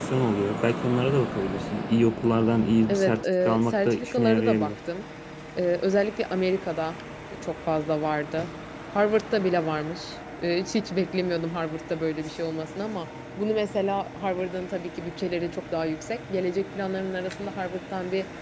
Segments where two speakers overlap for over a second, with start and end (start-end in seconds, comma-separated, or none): 2.9-4.7